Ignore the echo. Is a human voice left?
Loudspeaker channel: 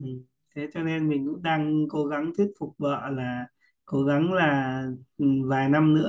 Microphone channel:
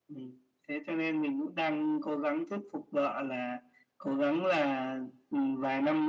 No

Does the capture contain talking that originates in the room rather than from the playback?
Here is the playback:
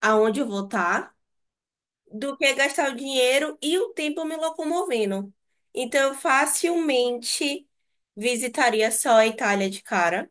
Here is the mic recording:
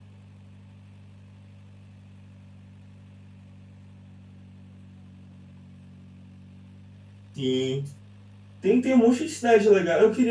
Yes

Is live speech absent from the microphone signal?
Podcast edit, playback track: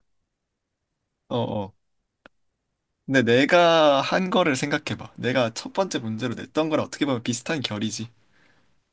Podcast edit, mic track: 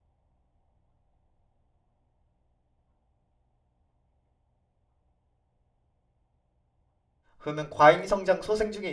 No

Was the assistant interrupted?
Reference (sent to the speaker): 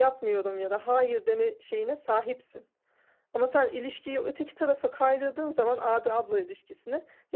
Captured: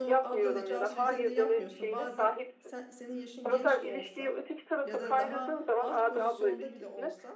Yes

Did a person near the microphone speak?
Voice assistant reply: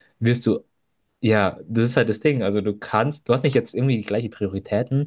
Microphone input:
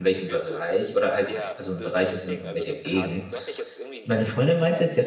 Yes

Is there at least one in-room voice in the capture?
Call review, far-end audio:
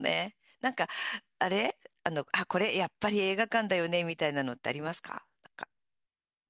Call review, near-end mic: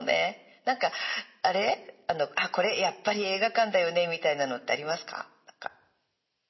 No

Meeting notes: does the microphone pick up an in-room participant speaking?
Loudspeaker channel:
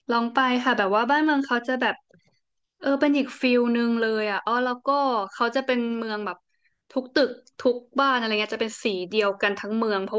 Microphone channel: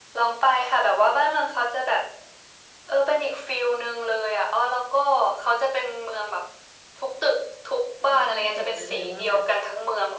Yes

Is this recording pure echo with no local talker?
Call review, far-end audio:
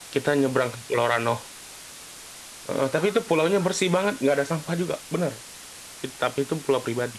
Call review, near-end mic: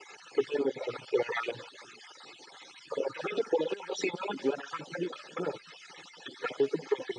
Yes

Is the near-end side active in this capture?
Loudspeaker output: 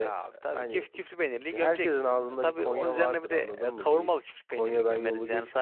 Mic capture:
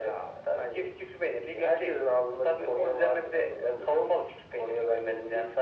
No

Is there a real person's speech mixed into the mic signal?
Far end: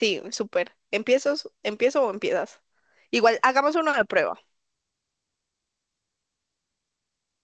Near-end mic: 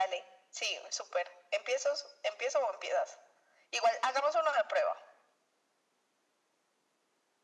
No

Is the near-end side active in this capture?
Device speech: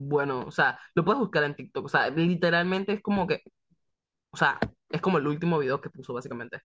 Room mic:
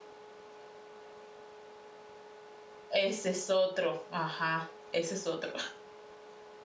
Yes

